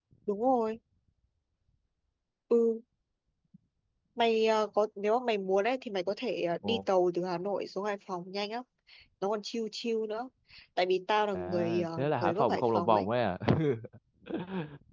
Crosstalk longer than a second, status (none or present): present